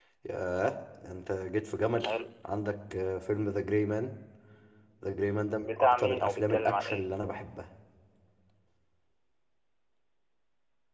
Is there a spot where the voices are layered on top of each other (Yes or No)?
Yes